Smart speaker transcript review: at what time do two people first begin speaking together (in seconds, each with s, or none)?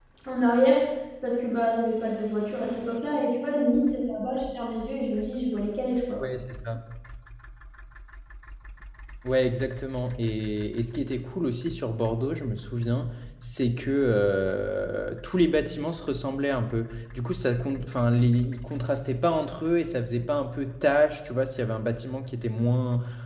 none